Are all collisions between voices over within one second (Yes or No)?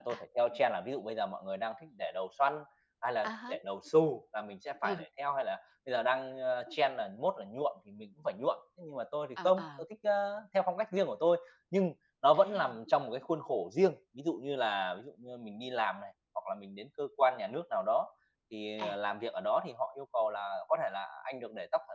Yes